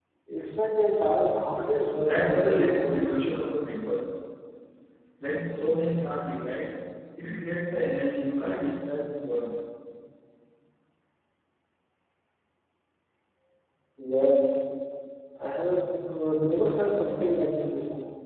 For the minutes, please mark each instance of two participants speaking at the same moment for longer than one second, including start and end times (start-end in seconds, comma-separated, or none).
2.0-3.2